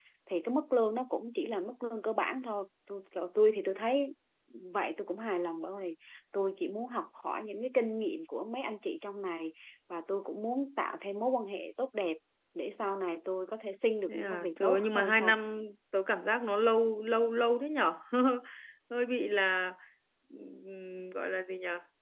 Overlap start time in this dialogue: 14.1 s

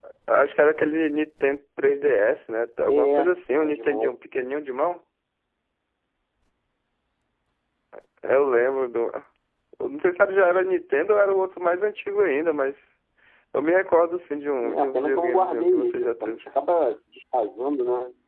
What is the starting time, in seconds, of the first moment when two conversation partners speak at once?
2.9 s

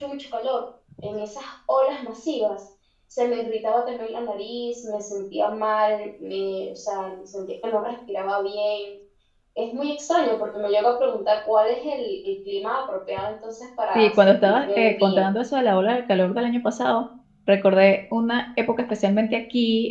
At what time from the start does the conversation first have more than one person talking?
13.9 s

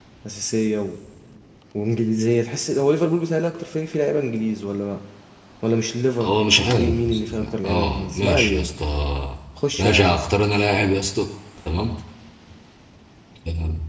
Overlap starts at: 6.2 s

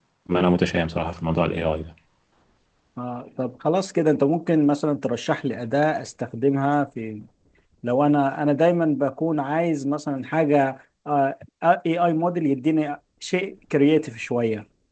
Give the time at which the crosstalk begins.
none

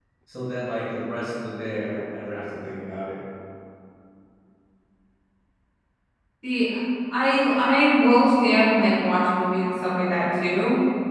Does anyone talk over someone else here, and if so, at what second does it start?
none

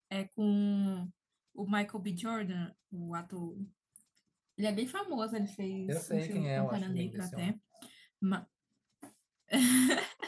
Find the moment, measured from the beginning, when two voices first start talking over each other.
5.9 s

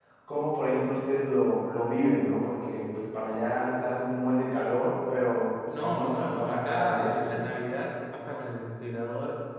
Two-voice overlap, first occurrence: 5.7 s

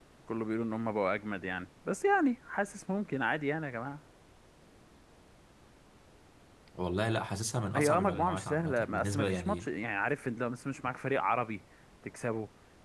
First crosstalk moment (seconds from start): 7.7 s

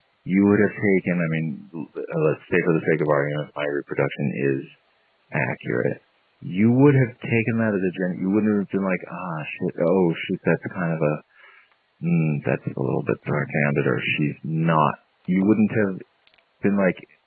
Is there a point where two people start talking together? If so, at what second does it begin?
none

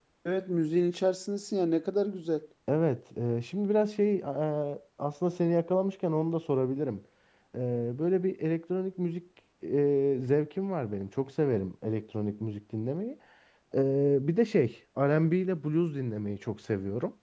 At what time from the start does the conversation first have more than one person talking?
none

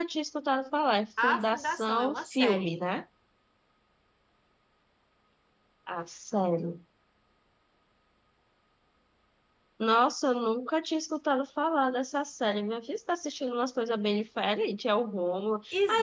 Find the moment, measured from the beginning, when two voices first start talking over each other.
1.2 s

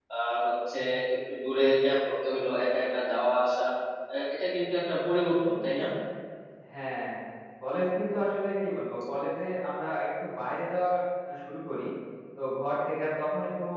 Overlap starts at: none

